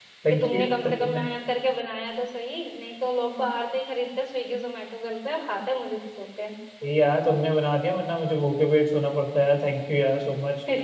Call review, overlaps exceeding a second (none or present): none